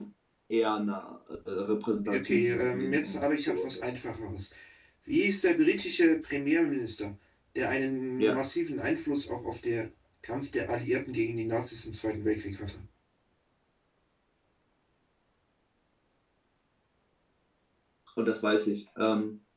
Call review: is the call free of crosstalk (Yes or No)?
No